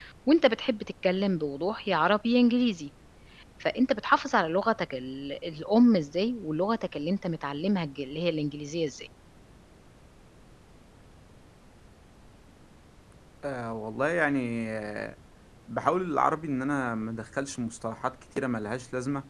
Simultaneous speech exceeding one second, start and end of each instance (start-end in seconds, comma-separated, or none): none